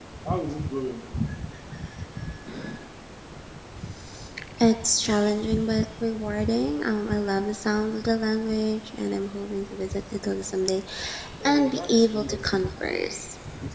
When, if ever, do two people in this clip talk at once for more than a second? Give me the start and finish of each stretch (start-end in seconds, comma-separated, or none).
11.4-13.2